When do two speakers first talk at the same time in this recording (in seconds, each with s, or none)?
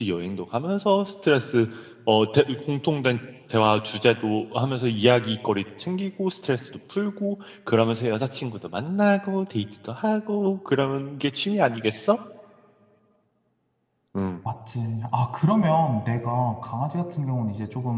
none